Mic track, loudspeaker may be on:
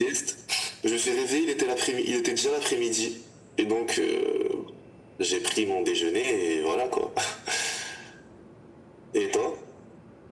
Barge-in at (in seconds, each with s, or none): none